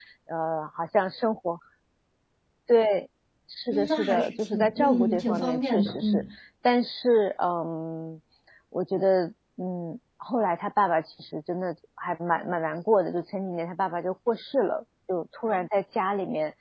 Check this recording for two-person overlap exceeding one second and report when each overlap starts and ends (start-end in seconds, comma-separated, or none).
3.7-6.2